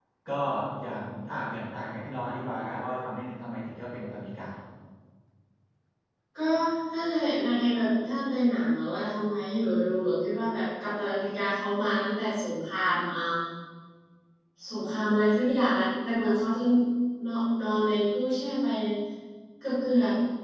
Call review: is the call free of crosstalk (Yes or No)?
Yes